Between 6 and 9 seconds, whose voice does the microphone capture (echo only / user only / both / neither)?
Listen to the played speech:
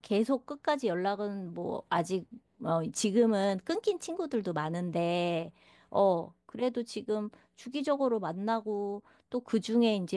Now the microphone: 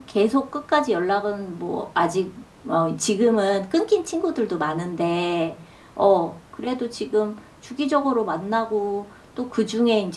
echo only